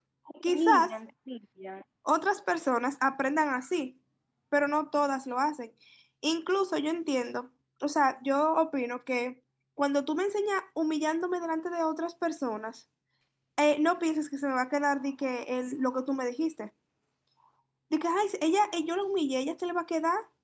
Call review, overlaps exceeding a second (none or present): none